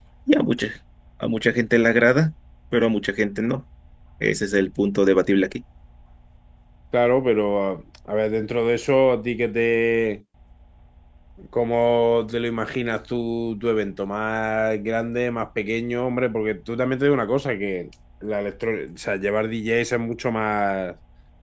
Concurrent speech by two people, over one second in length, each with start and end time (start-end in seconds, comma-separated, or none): none